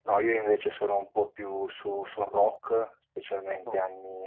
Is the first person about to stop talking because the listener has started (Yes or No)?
No